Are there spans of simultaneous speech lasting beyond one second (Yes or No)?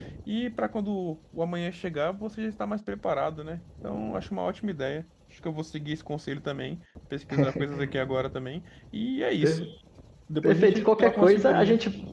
Yes